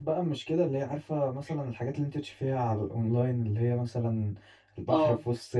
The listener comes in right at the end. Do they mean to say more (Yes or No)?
No